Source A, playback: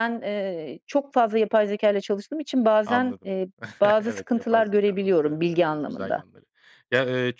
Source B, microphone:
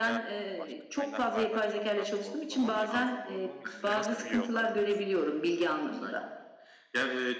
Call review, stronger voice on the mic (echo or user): echo